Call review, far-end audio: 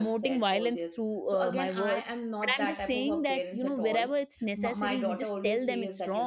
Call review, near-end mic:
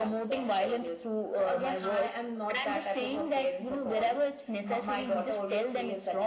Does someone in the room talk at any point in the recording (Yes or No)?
No